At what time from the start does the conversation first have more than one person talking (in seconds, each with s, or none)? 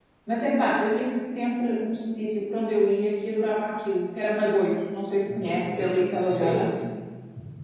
5.3 s